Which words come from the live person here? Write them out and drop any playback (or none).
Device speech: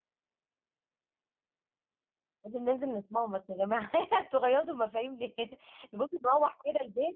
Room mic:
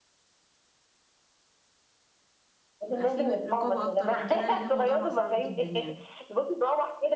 يبقى في رقابة اكتر من كده لان الموضوع بقى صعب جدا يعني